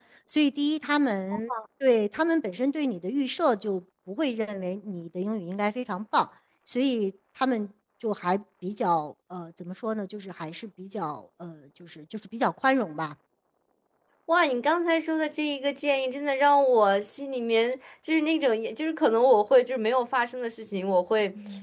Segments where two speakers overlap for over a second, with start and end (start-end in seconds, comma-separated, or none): none